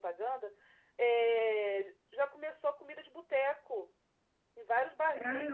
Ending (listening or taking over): taking over